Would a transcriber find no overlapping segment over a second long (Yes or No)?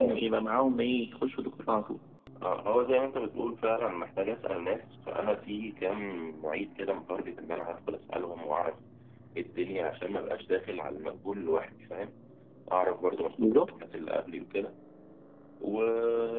Yes